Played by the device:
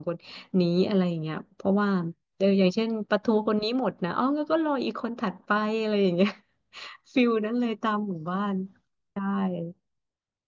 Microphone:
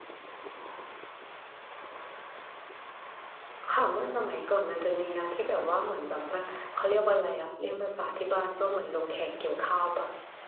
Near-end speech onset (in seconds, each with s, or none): 3.7 s